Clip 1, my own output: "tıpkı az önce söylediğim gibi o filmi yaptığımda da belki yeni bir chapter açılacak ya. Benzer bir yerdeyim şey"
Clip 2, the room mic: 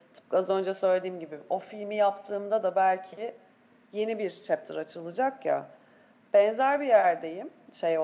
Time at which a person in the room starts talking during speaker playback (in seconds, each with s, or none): none